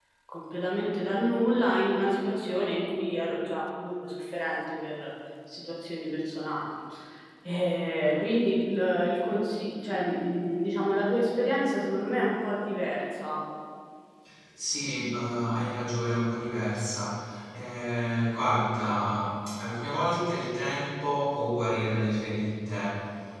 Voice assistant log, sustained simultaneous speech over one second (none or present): none